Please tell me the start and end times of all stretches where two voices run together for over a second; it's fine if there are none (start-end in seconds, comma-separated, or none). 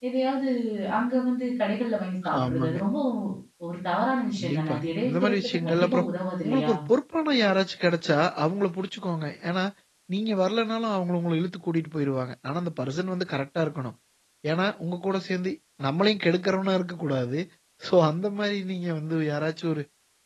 4.4-6.0